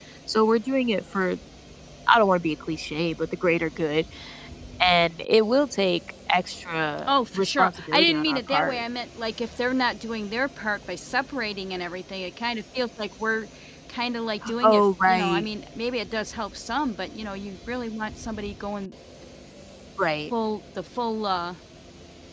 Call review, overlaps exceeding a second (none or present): present